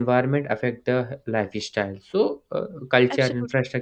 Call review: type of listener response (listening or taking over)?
listening